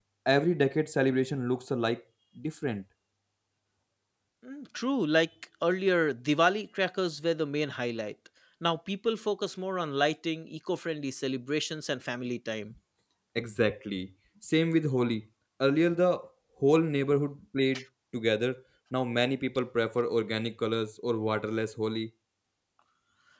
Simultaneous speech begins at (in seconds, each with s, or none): none